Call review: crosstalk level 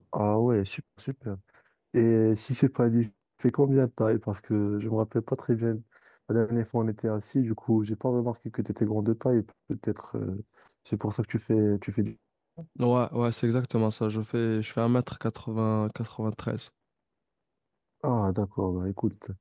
none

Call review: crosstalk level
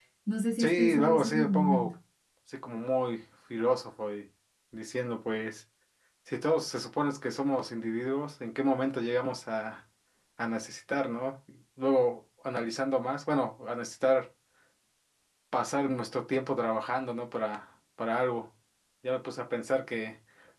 present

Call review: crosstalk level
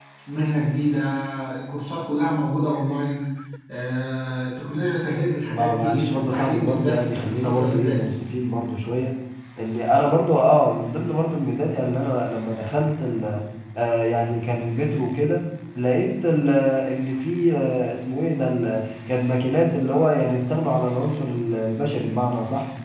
present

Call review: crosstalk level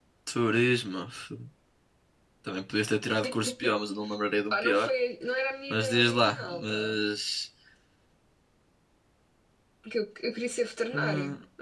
present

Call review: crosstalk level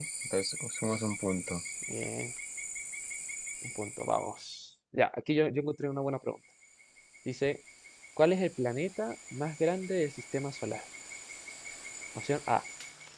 none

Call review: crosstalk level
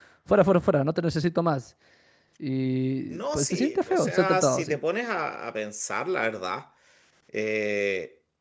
present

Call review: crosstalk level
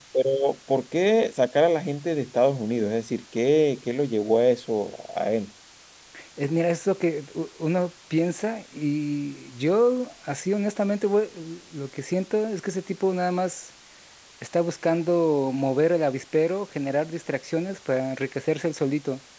none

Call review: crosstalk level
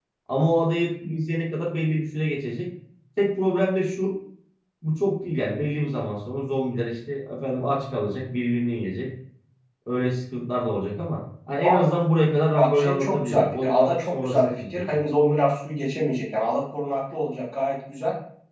present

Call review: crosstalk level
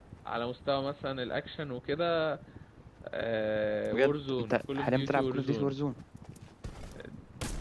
present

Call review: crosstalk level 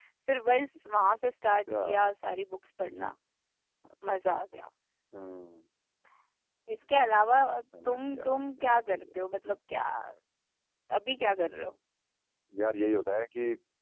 present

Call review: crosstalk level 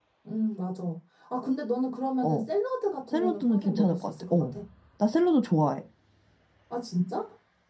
present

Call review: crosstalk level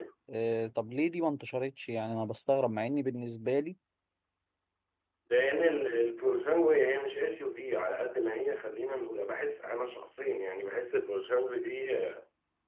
none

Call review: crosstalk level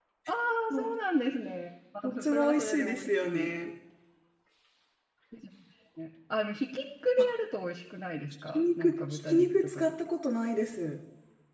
present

